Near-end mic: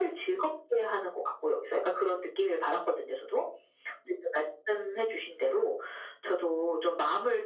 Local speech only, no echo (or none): none